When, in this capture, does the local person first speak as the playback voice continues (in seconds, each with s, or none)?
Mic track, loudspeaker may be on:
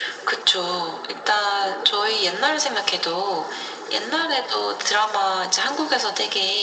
none